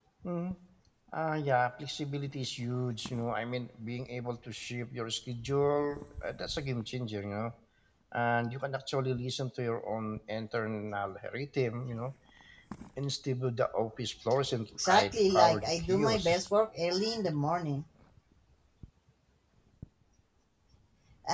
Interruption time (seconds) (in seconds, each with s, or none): 14.8 s